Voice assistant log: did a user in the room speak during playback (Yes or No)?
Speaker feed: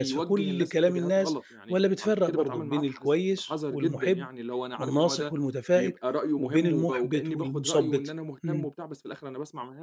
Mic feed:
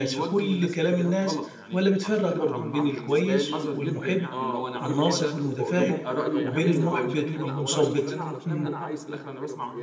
Yes